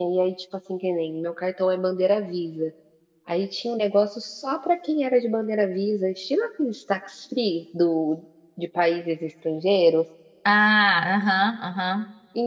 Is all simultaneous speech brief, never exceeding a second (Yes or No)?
Yes